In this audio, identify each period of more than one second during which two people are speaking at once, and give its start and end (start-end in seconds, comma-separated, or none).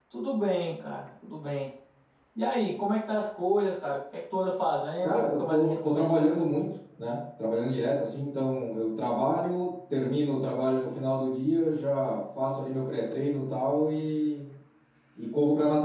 5.0-6.3